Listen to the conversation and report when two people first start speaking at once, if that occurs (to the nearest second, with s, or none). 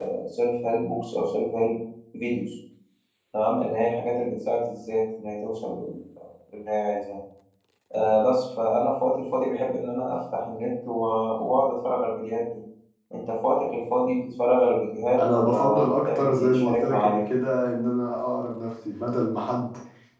15 s